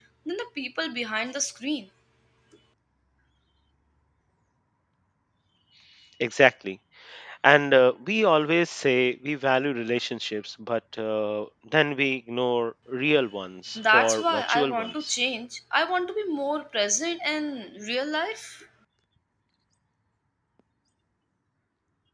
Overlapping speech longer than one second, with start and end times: 13.8-15.2

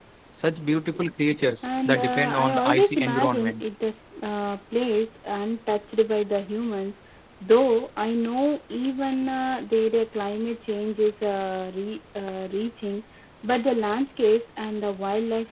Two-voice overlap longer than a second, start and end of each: 1.9-3.6

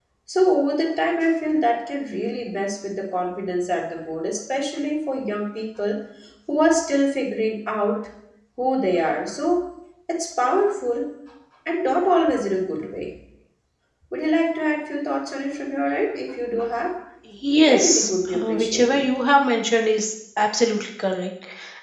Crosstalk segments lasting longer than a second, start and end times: 17.5-19.0

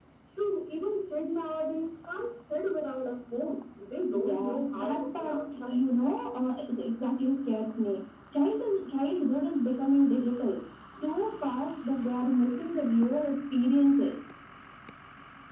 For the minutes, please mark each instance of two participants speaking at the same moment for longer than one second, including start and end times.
4.1-5.8

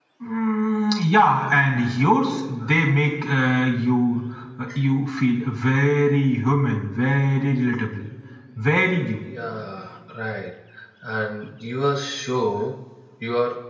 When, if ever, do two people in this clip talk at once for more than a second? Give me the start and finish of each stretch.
none

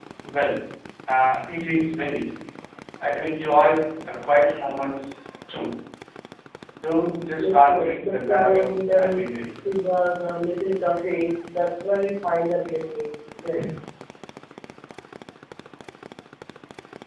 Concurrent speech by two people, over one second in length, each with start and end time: 7.4-9.2

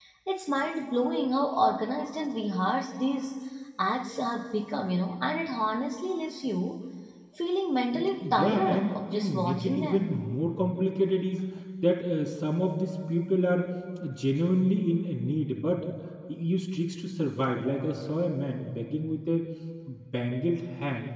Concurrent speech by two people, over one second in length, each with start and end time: 8.2-10.2

